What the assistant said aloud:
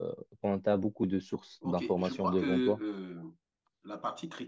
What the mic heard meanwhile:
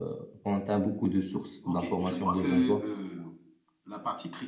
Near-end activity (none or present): none